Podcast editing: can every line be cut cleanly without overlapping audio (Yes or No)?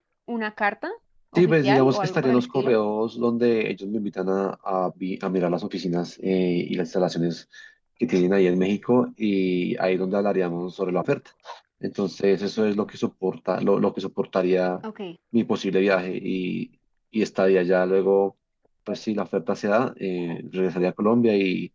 No